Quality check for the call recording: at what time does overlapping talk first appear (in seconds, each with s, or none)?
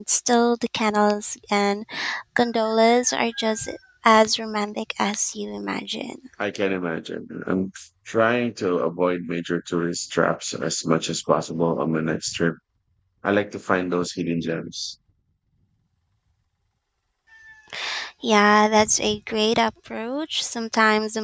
none